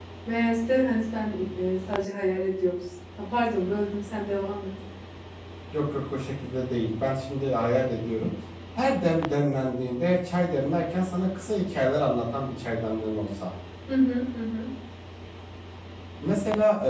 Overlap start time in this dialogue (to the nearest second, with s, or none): none